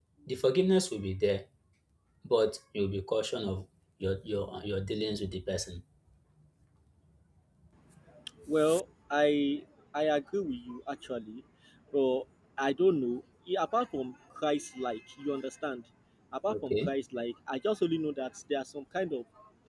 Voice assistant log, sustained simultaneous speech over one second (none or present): none